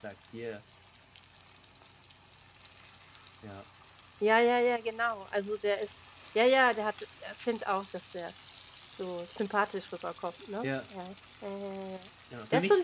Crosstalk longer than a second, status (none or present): none